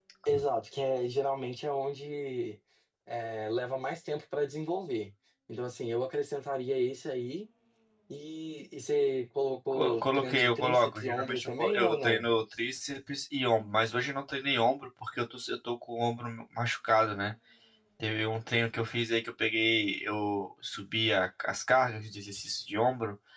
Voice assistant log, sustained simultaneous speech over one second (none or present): present